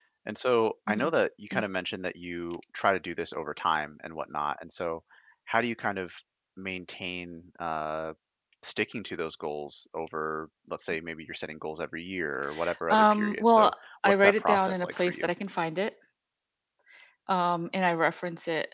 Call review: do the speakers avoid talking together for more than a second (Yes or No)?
No